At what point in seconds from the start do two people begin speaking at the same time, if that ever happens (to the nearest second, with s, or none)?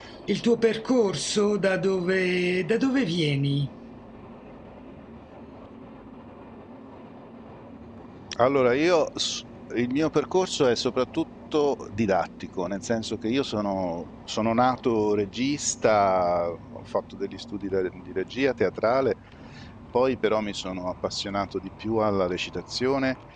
none